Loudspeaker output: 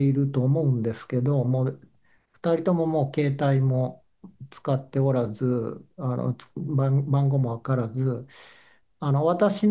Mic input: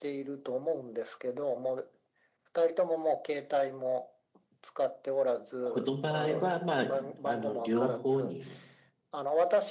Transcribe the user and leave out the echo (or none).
この場合は、まあ、あの、両方に